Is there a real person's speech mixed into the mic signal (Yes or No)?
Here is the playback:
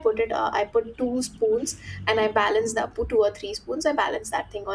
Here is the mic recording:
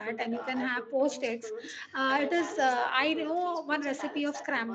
Yes